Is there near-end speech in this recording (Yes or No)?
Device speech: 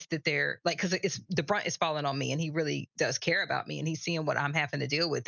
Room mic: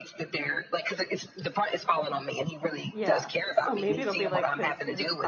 Yes